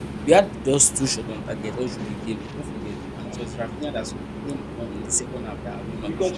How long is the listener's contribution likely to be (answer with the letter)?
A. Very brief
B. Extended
B